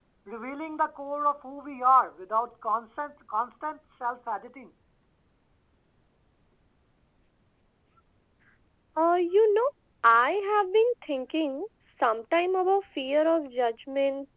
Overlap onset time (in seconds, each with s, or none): none